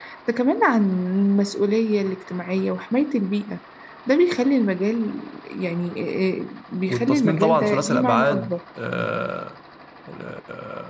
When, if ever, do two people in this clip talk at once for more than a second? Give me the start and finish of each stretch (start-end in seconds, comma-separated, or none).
6.9-8.6